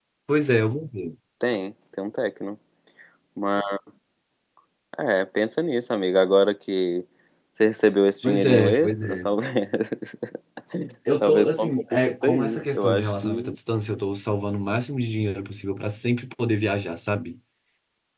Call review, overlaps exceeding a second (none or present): present